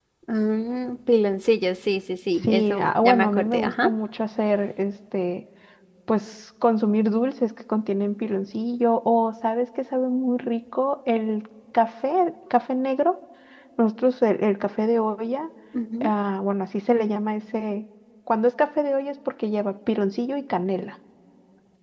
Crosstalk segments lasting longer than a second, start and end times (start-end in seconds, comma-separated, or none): 2.4-3.9